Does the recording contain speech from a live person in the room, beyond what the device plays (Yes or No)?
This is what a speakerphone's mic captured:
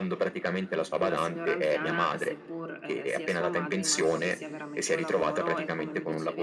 Yes